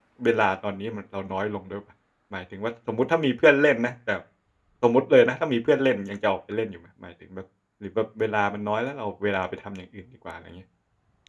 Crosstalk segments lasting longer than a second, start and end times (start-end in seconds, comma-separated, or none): none